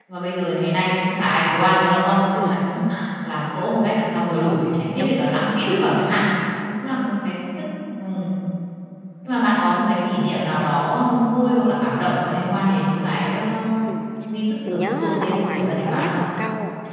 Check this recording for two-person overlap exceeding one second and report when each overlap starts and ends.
14.7-16.3

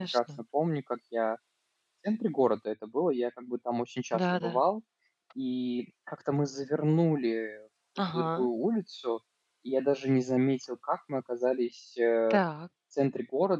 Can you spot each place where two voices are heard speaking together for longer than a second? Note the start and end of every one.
none

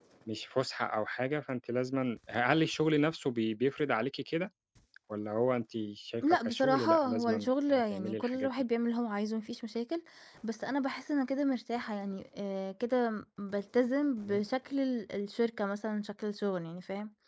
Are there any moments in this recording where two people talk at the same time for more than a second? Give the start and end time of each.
6.2-8.5

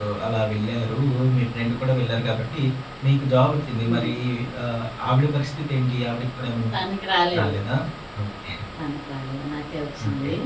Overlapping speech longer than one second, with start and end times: none

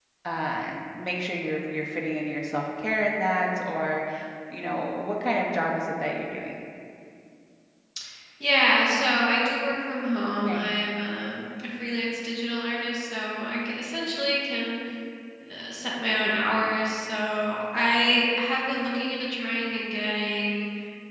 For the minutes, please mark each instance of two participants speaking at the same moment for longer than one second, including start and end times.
none

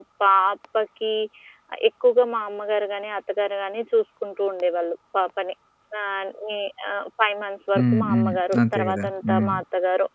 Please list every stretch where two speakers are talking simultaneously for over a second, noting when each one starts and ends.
7.8-9.5

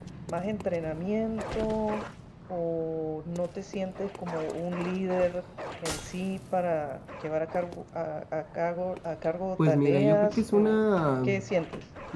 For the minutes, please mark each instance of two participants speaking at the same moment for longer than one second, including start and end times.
9.7-10.8

